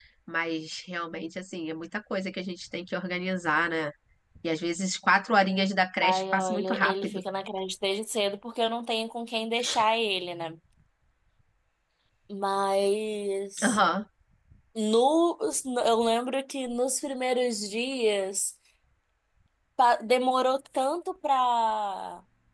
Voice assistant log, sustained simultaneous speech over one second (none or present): present